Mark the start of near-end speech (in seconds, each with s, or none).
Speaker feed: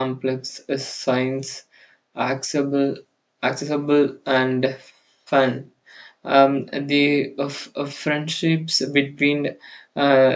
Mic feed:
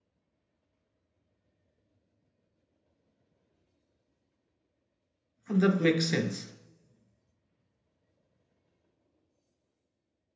5.5 s